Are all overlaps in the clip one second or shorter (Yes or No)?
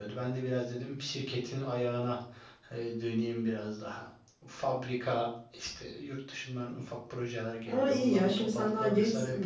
No